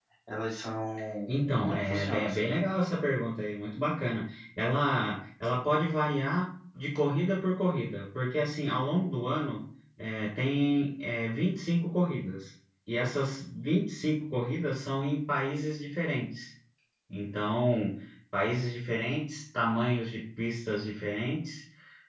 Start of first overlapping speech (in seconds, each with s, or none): 1.3 s